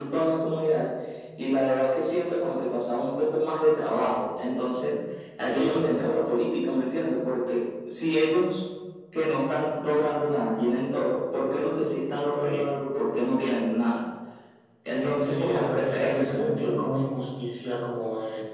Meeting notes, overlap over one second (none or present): present